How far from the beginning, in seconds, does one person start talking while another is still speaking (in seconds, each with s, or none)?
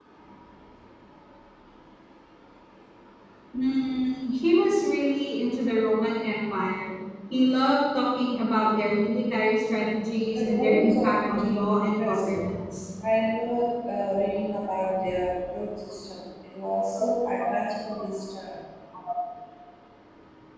10.2 s